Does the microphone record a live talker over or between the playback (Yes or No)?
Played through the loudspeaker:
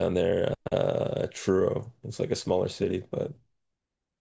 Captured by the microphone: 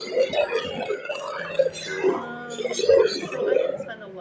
Yes